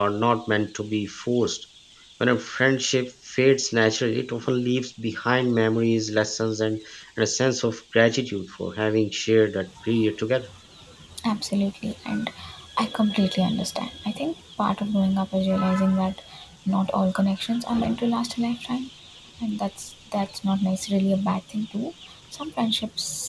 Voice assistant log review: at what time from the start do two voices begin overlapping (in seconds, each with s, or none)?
none